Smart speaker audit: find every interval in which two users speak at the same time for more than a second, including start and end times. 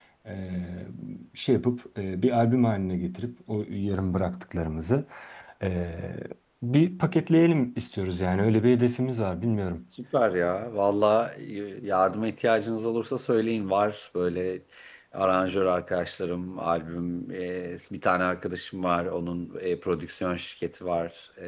none

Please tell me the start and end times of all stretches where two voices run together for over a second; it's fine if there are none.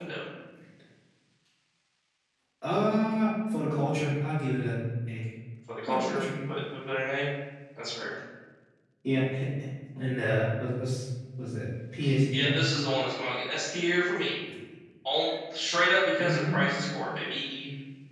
none

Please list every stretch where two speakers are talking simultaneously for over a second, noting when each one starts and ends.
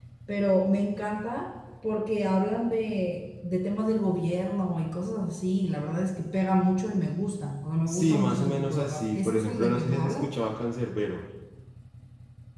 7.9-10.3

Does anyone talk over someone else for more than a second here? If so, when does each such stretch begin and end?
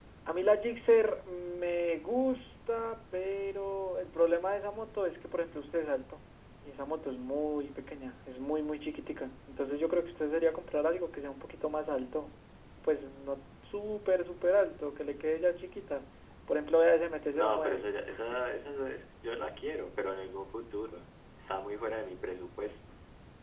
none

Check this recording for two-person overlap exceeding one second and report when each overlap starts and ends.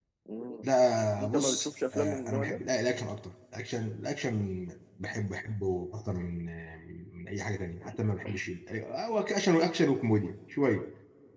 1.2-2.6

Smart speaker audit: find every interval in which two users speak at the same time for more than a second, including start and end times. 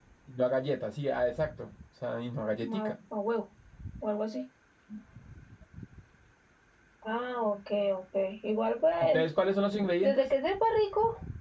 none

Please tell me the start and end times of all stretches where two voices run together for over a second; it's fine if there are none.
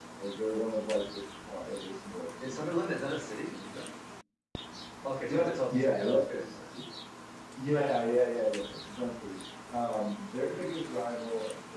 5.2-6.5

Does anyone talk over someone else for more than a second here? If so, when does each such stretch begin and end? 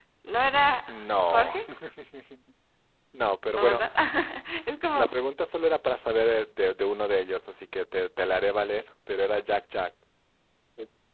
none

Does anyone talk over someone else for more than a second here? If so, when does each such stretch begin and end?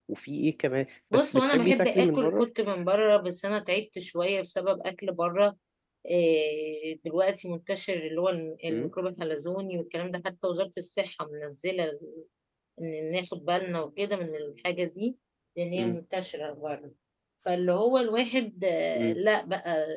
1.1-2.4

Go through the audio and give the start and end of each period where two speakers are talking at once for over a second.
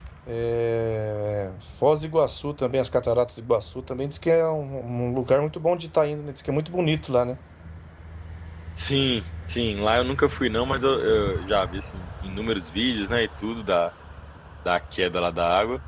none

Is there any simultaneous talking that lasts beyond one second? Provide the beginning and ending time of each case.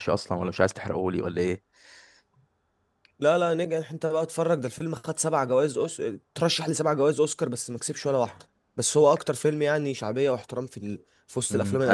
none

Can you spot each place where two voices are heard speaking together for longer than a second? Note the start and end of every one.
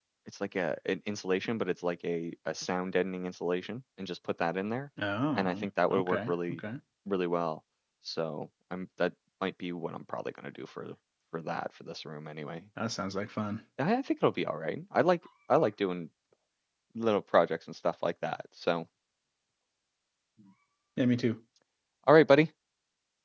5.4-6.6

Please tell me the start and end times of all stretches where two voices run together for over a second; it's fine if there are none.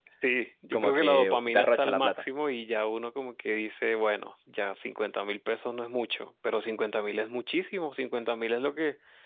0.7-2.2

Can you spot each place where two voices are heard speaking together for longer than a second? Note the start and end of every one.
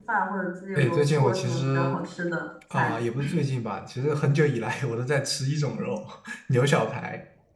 0.8-2.0

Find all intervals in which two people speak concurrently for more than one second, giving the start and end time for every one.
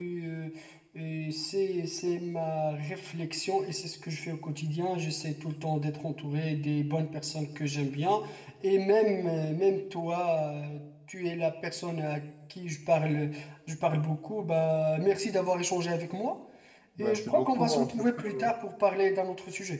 17.0-18.5

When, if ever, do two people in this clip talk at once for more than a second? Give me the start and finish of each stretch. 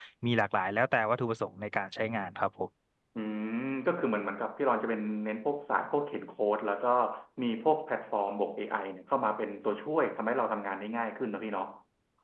none

